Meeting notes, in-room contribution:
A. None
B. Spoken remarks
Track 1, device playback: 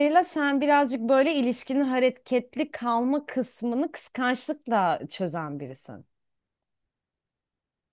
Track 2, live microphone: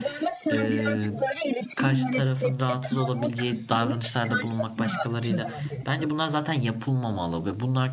B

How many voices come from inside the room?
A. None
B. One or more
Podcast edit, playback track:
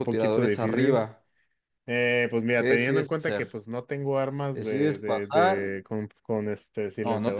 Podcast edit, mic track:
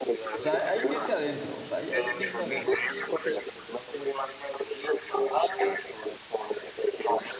B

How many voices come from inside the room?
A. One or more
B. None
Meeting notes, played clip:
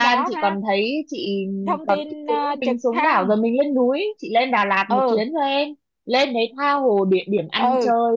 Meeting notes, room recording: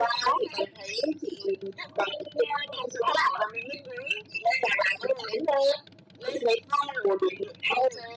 B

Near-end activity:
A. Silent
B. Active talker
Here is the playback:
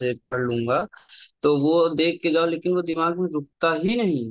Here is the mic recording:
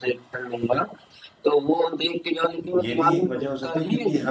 B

